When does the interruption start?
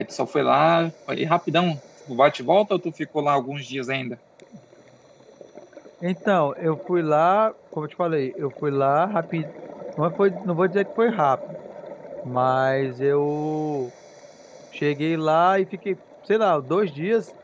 none

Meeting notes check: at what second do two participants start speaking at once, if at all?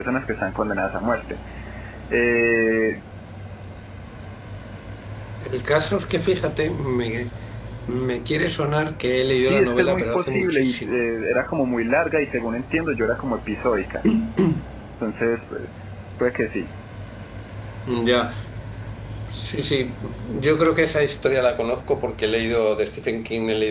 9.3 s

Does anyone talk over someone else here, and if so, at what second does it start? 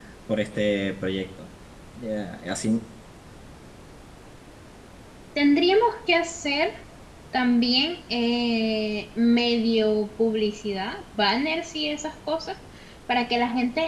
none

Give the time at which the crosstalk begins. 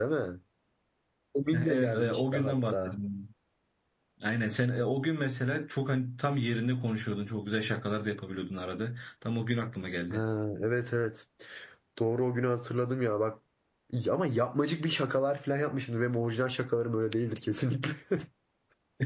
1.5 s

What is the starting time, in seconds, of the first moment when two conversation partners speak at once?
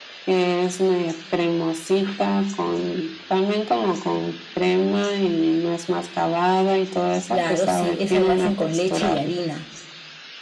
7.3 s

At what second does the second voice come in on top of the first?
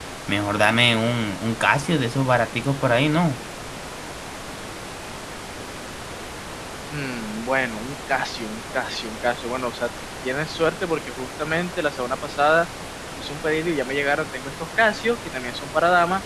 none

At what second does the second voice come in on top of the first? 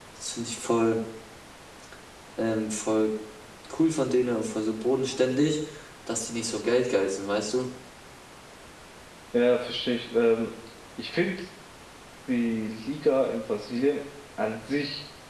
none

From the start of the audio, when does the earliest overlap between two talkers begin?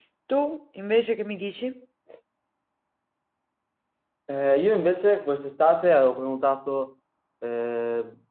none

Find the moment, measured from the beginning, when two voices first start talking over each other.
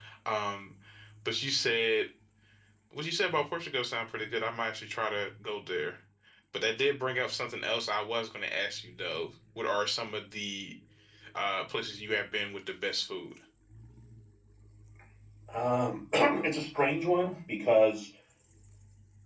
none

